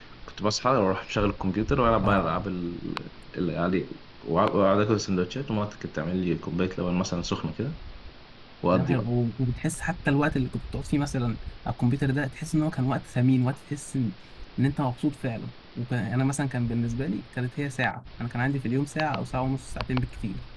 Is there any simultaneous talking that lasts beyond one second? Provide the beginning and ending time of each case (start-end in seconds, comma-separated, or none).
none